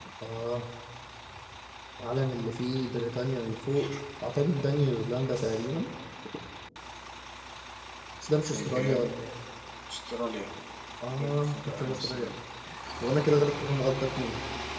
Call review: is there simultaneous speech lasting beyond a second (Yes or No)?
Yes